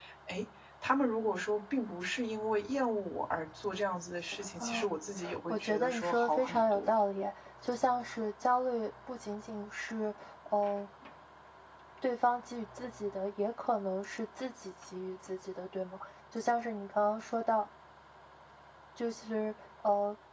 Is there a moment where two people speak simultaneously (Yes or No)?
Yes